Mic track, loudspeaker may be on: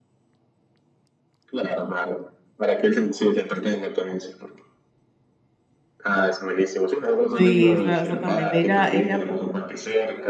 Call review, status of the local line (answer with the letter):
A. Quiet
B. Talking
B